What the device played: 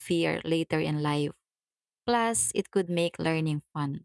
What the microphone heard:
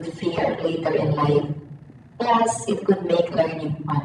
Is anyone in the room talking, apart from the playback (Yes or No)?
No